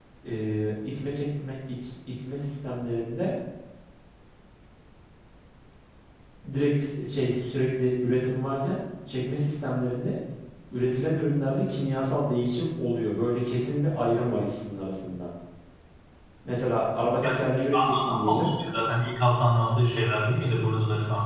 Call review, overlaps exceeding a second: present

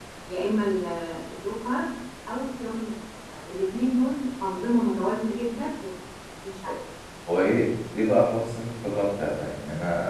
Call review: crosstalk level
none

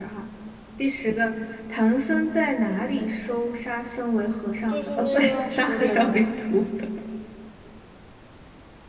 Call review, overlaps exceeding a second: present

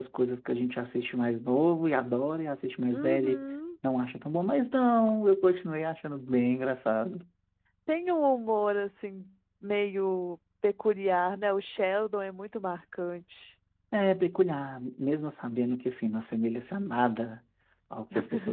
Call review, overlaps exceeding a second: none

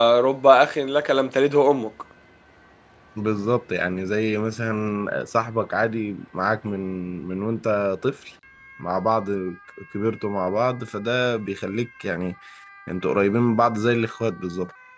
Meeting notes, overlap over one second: none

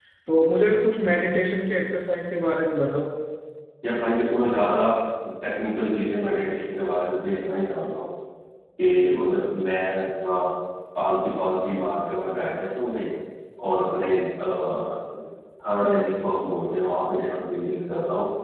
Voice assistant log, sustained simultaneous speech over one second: none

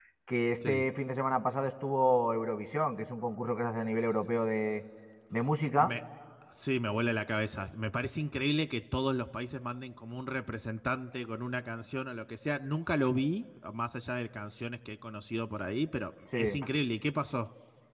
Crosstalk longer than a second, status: none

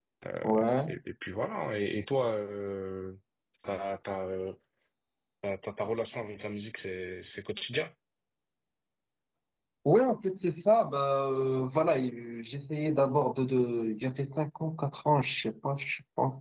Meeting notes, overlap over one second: none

